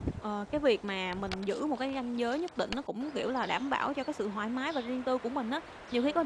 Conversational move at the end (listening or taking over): listening